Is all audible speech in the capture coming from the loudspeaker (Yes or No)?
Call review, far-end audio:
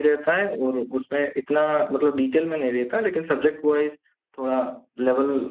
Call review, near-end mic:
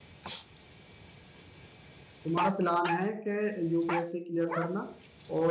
No